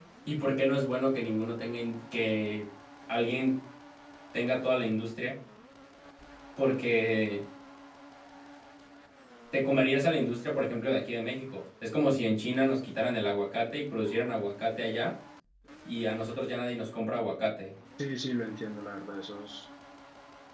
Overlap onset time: none

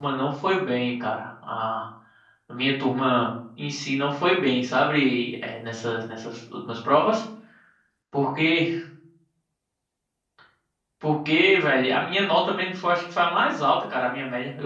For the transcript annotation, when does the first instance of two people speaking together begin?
none

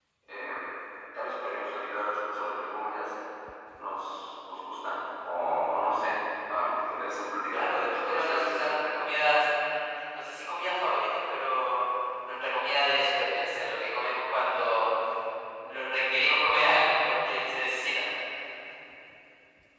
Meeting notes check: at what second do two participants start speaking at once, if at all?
8 s

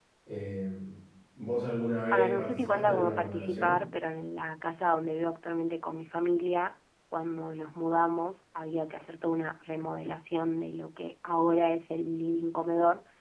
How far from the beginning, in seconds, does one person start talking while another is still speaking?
2 s

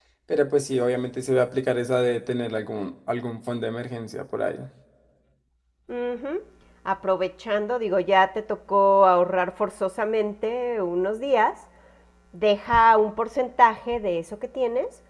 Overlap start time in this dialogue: none

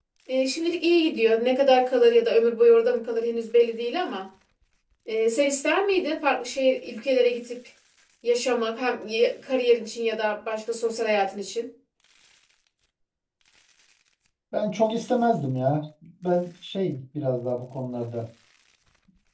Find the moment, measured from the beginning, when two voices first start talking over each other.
none

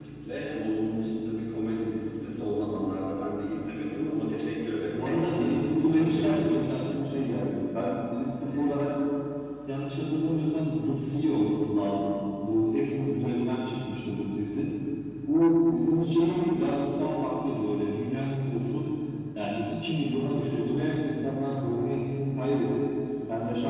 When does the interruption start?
5 s

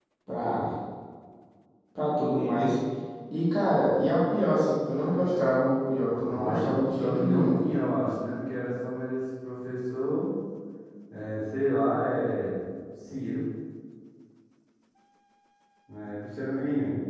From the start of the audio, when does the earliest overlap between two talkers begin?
6 s

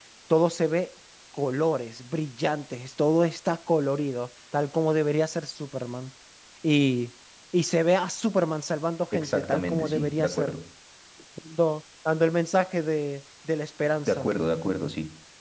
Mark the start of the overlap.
9 s

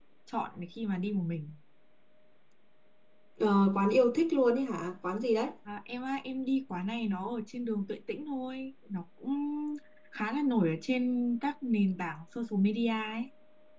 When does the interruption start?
none

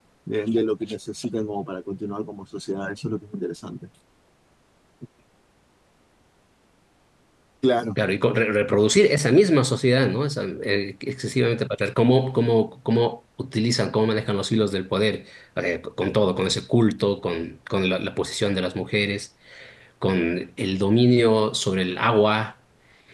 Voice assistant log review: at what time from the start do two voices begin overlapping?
none

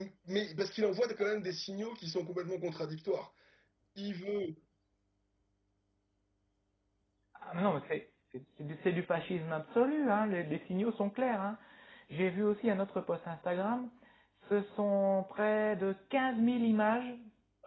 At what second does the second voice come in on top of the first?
none

